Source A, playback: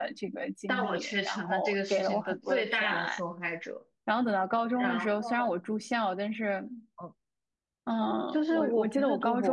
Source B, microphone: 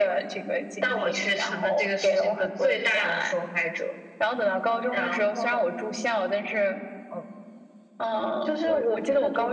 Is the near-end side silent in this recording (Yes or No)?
Yes